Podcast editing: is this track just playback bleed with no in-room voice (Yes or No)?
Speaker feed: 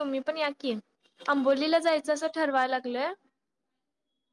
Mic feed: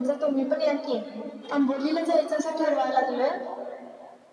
No